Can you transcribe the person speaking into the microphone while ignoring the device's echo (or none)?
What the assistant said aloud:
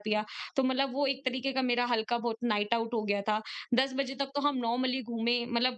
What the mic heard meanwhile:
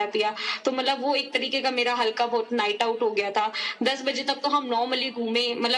none